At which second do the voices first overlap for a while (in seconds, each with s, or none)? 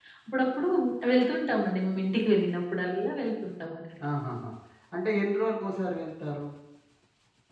none